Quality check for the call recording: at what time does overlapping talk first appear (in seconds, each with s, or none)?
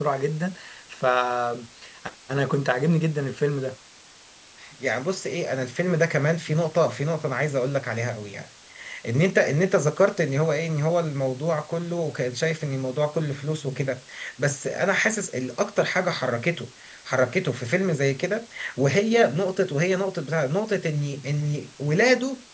none